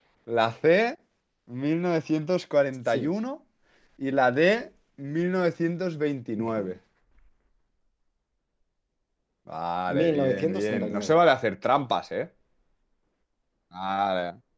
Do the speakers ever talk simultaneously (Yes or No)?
Yes